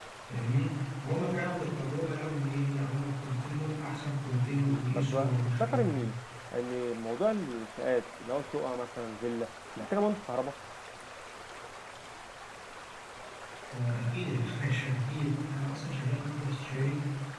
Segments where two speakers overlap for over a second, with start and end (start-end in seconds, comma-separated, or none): 4.7-5.9